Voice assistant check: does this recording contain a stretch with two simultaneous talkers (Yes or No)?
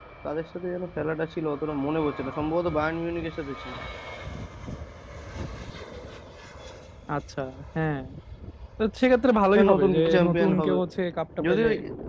Yes